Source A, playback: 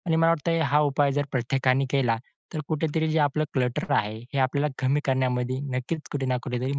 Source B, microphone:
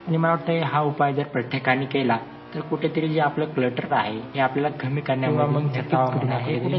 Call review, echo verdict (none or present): present